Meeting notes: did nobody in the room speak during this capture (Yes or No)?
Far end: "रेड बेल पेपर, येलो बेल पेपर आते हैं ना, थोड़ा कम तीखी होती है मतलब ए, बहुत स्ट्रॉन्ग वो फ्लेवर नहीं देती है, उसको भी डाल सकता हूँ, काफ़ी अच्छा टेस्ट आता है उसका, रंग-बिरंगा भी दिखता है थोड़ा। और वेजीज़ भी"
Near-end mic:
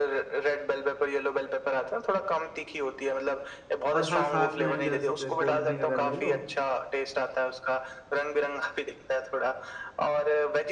No